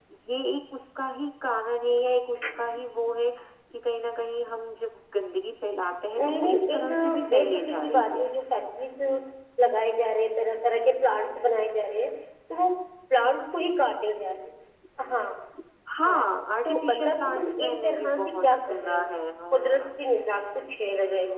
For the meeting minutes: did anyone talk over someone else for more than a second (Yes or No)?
Yes